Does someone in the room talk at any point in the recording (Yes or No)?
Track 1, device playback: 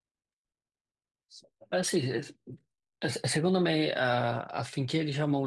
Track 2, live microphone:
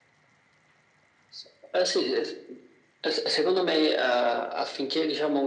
No